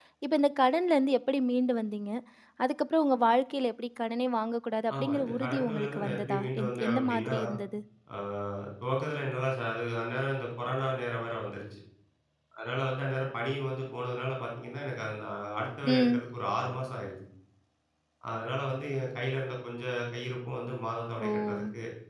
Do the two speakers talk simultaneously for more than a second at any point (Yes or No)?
Yes